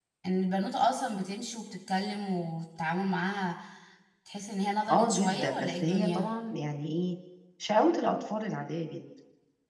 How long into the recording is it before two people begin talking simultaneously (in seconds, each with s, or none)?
4.9 s